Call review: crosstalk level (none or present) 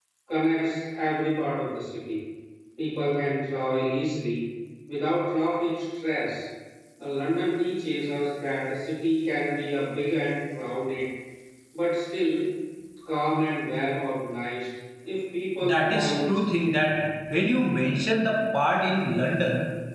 present